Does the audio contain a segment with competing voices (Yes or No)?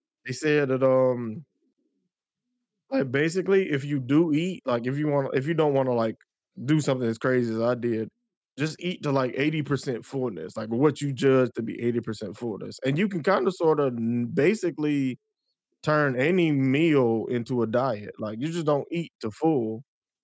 No